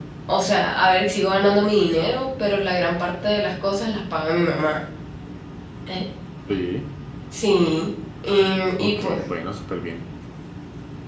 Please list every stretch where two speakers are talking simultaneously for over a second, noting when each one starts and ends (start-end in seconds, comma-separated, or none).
none